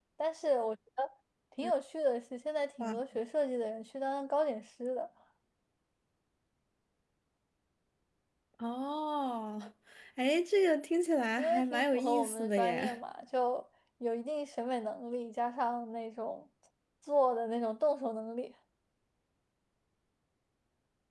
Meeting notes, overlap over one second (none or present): present